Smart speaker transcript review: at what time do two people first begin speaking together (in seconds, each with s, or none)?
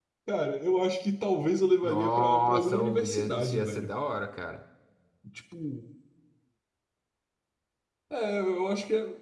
1.8 s